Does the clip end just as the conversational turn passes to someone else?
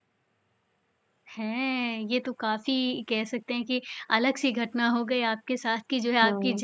No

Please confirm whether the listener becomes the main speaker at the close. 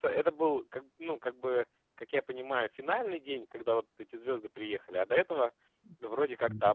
Yes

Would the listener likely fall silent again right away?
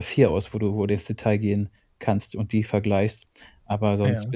Yes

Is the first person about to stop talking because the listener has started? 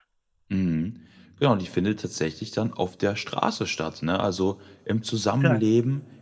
No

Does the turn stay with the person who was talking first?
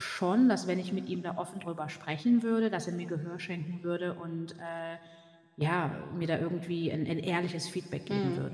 No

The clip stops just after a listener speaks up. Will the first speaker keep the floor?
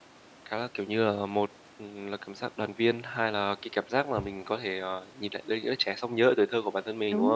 No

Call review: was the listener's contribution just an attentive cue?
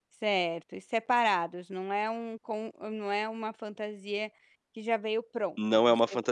No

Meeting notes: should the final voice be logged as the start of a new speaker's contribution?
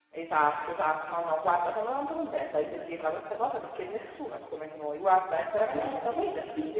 Yes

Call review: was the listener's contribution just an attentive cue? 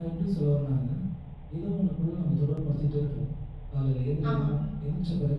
Yes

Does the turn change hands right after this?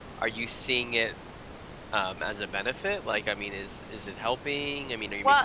Yes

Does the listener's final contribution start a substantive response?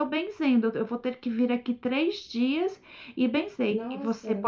No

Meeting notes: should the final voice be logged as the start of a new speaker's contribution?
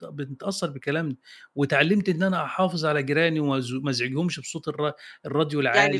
Yes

